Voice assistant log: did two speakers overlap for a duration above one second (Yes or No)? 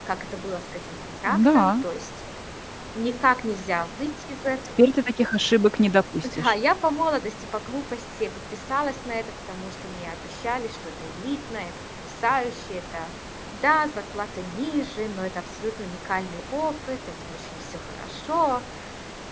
No